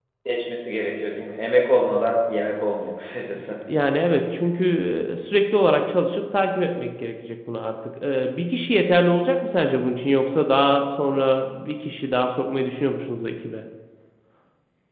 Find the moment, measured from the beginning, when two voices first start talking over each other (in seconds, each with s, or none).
none